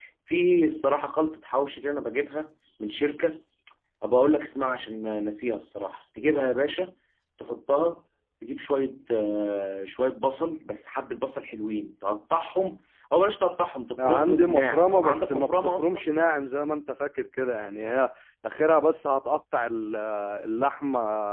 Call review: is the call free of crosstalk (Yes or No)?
No